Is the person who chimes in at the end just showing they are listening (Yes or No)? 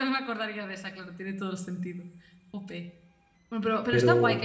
Yes